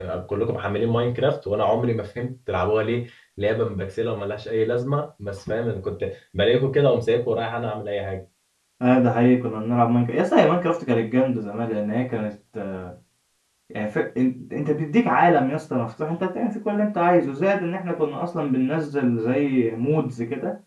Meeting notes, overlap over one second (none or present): none